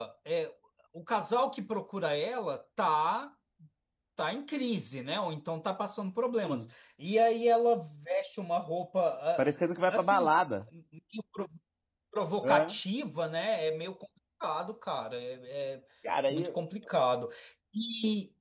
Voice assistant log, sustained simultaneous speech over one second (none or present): none